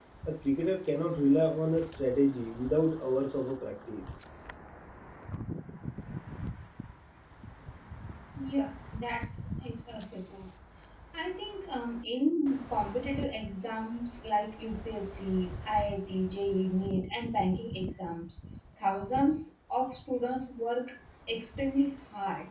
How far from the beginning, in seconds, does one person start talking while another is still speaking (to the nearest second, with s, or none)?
none